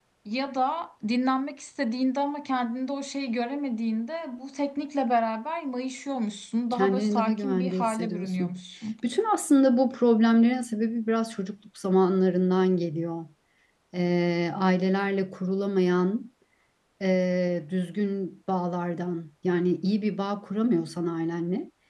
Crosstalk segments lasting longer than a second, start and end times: 6.7-8.5

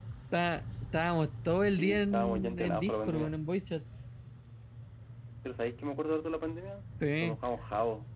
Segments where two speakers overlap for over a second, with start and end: 1.7-3.3

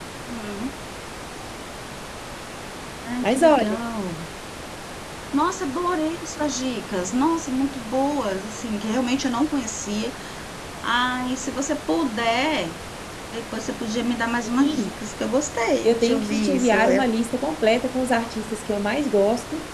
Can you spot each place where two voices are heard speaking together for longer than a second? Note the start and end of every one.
15.8-17.1

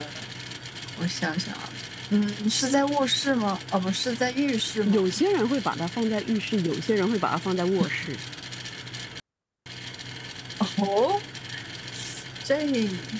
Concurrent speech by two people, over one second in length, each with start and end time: none

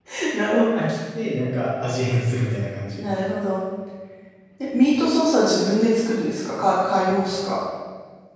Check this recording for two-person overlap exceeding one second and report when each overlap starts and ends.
none

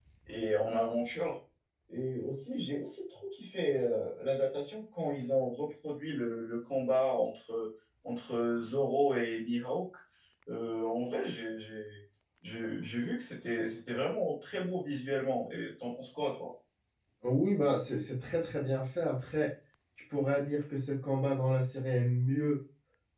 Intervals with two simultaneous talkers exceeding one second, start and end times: none

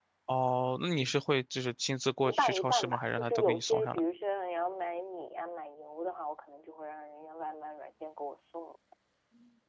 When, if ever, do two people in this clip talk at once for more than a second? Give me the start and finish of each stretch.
2.2-4.0

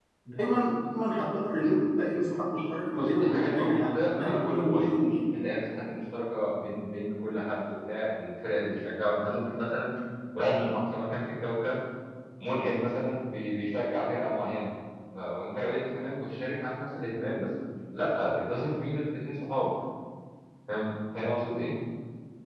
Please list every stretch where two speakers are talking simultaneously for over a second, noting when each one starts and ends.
2.9-5.0

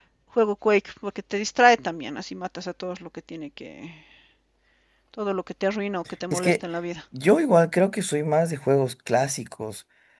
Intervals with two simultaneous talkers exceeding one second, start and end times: none

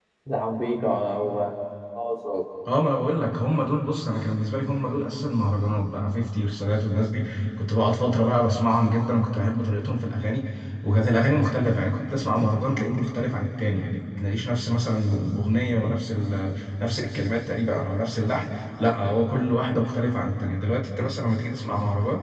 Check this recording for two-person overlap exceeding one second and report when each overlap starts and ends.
none

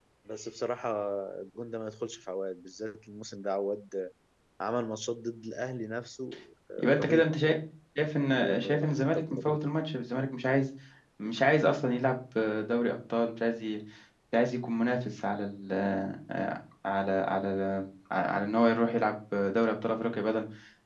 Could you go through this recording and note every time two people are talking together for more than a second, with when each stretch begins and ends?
8.3-9.7

